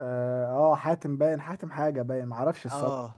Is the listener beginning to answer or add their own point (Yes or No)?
Yes